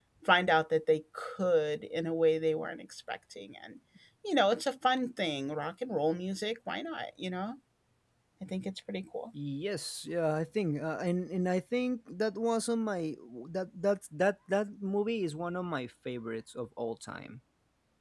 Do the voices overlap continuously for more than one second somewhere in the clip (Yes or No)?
No